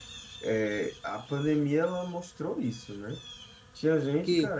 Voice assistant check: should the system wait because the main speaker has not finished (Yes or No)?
Yes